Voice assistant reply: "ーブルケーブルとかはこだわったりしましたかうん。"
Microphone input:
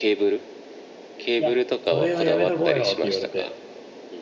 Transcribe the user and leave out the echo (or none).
いや、それはやめとこうよって言われて、